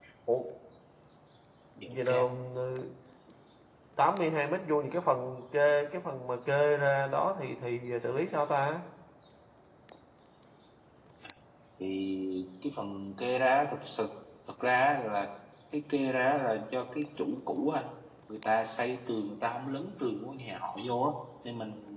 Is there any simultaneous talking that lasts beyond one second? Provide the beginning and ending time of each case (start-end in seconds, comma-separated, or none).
none